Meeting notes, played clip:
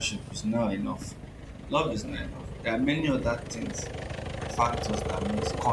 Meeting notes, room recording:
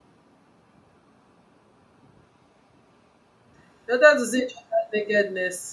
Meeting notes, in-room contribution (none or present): present